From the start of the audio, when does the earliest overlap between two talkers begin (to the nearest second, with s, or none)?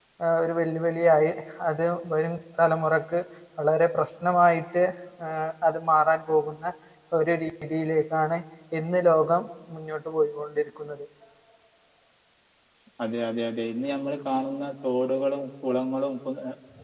none